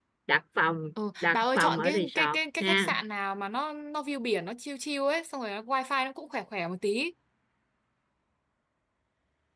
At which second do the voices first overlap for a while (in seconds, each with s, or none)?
1.2 s